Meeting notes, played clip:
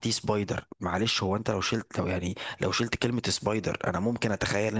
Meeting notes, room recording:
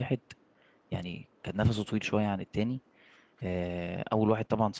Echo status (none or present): none